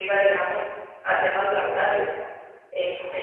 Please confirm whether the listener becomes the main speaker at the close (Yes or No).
No